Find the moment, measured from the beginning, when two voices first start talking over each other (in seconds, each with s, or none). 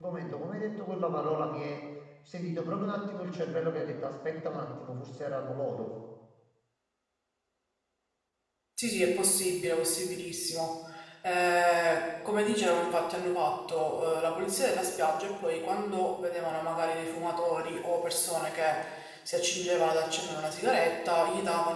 none